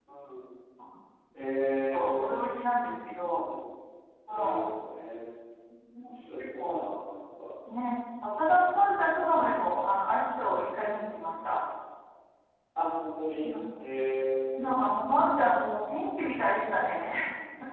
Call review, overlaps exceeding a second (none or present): none